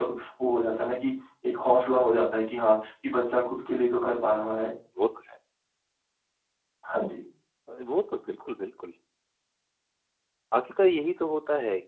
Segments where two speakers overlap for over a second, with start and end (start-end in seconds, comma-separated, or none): none